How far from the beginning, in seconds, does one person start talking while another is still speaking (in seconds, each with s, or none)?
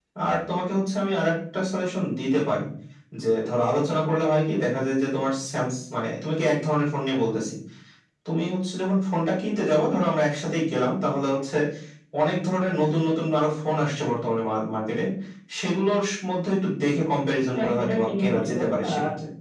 17.6 s